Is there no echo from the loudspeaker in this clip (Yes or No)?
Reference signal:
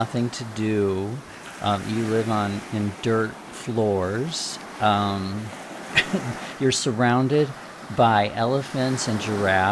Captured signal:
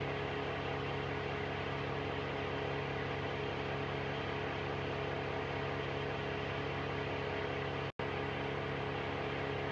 Yes